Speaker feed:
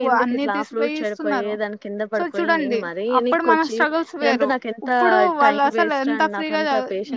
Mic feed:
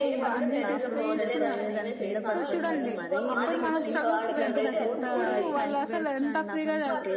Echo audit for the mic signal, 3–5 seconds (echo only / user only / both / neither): both